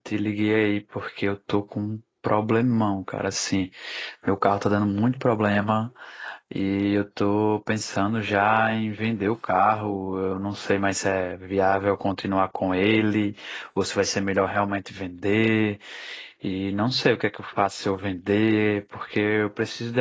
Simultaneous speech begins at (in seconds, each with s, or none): none